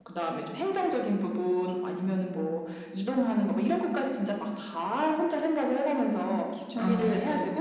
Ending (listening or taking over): listening